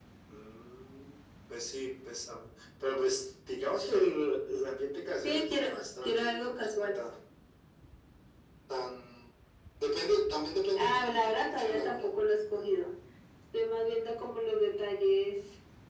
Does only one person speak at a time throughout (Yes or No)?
No